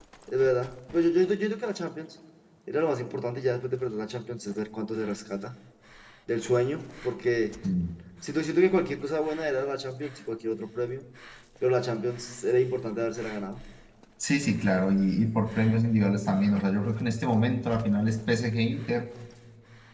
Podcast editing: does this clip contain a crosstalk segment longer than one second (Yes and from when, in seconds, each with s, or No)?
No